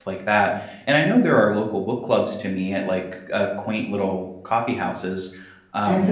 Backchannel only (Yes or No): No